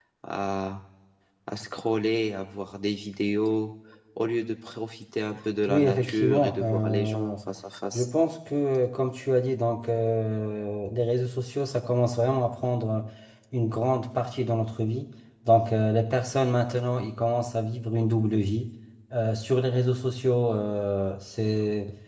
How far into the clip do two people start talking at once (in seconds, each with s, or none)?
5.7 s